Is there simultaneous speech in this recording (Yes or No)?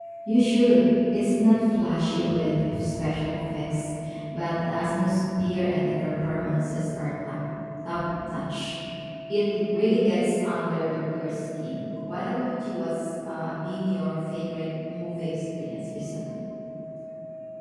No